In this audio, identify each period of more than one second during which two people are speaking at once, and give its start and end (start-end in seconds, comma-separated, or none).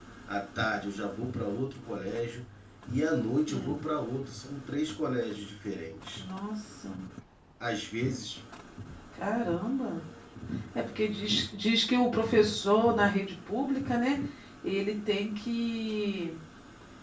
none